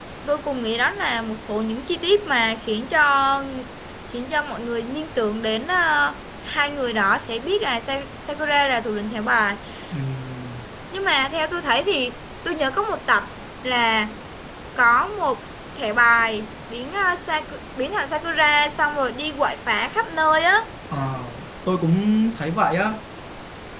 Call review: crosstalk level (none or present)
none